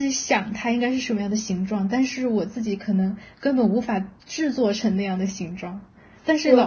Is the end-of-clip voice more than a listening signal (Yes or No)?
No